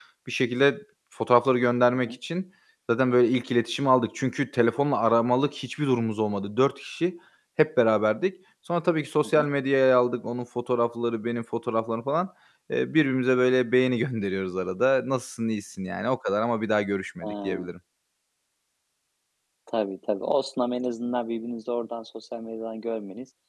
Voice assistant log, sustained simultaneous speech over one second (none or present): none